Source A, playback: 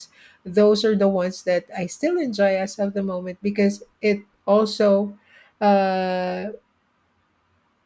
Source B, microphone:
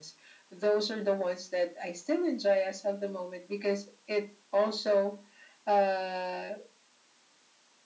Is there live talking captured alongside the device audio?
No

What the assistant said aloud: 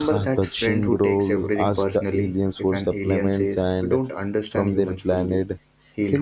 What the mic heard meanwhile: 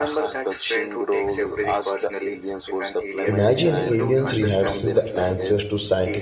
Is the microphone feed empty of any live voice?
No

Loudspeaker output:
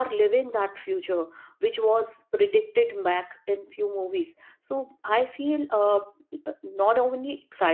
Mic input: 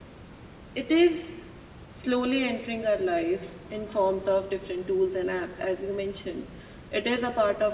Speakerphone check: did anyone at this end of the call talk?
Yes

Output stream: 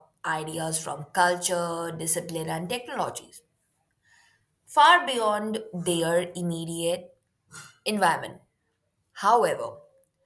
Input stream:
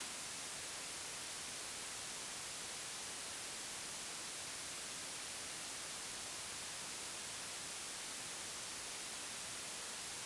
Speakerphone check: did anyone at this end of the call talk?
No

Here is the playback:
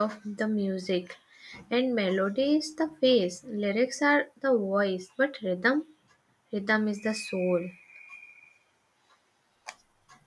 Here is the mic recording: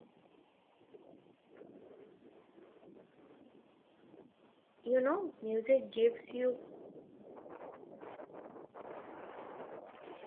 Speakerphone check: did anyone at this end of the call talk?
Yes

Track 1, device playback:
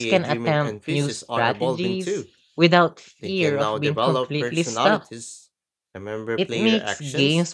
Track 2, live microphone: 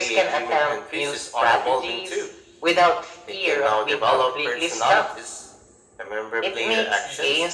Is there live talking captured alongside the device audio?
No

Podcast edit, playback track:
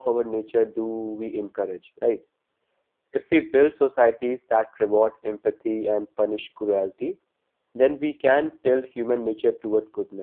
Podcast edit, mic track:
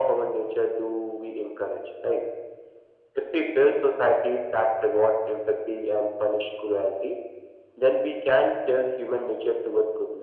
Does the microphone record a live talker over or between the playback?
No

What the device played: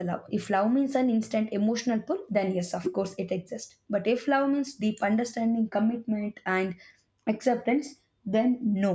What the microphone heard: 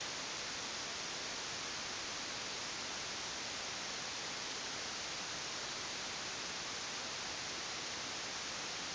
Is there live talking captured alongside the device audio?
No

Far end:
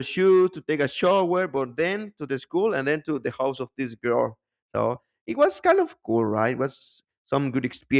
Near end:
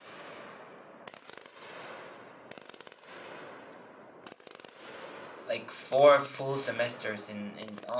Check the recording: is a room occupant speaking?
Yes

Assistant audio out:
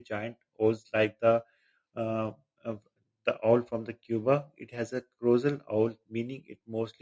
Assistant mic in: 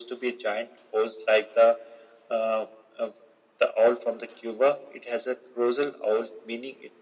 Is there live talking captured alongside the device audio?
No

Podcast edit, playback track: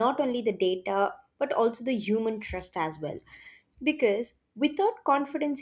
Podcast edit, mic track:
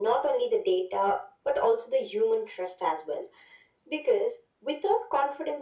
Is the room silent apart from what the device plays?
Yes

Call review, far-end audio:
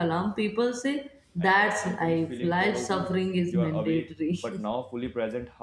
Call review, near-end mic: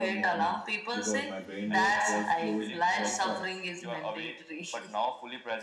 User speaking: Yes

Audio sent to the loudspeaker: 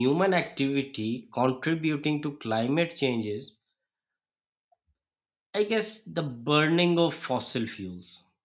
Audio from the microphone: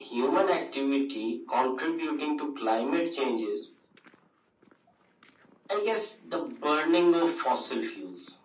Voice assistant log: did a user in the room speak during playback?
No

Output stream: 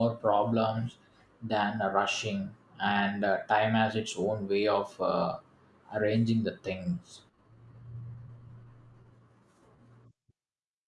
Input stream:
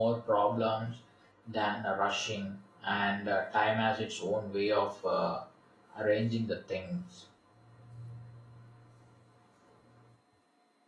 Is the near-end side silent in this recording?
Yes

